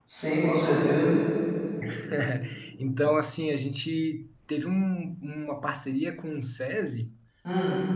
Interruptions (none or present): none